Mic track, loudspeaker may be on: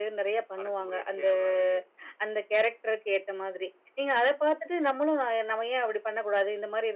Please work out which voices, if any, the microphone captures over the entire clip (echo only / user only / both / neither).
both